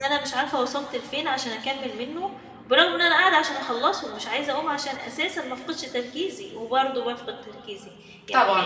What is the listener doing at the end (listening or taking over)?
listening